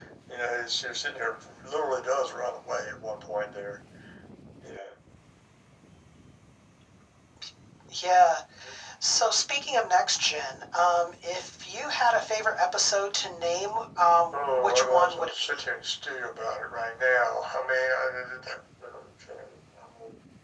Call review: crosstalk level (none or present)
present